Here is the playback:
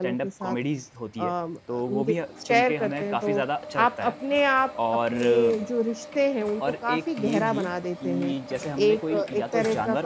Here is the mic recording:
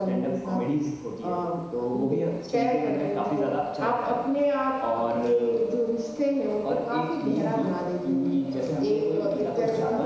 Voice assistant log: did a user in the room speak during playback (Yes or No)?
No